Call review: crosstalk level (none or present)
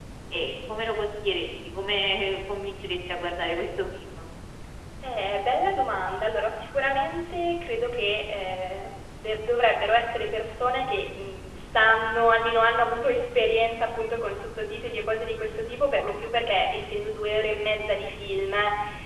none